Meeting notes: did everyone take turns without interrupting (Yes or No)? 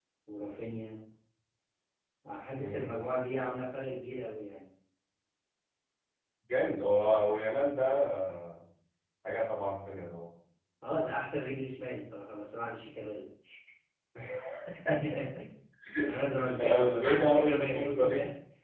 No